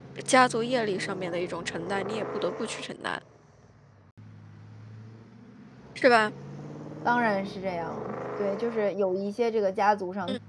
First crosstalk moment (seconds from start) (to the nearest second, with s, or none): none